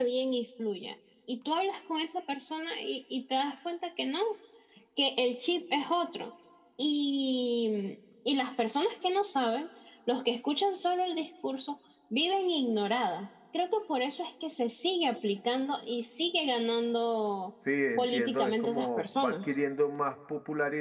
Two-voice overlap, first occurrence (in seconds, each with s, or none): 18.0 s